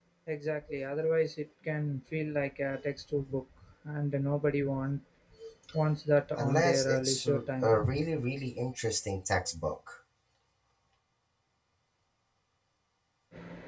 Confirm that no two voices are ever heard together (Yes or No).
No